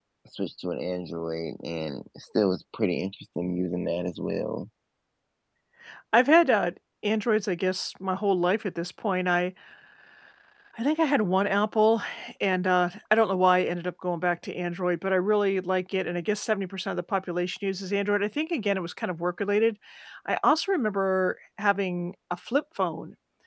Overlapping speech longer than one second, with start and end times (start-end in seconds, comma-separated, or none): none